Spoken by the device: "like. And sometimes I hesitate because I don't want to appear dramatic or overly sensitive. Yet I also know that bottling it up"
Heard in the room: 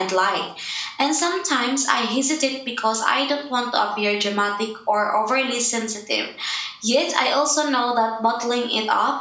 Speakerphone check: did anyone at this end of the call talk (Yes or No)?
No